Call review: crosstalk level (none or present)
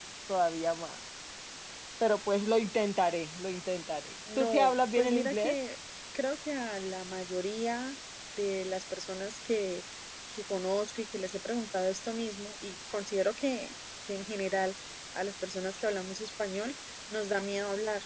present